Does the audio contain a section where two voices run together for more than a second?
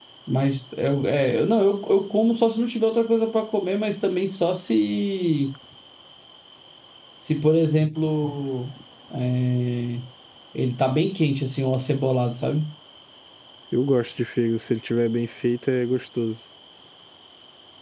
No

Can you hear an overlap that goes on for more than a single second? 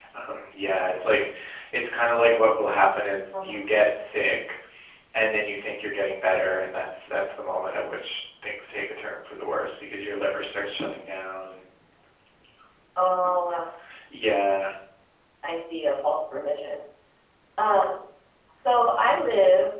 No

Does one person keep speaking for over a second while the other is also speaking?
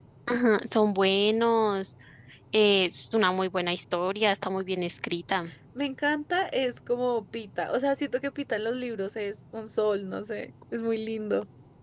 No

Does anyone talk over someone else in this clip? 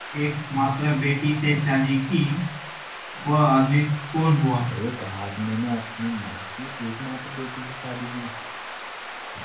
No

